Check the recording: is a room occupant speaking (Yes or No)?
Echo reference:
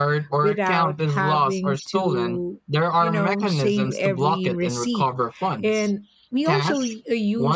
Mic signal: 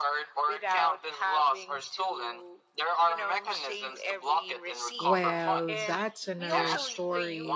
Yes